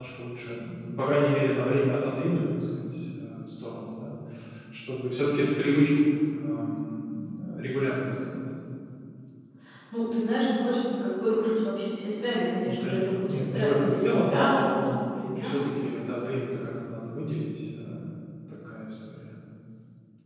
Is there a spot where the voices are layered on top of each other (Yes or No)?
Yes